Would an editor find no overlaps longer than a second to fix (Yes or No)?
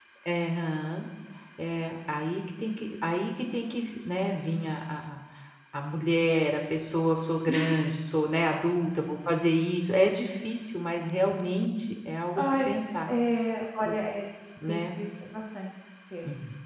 Yes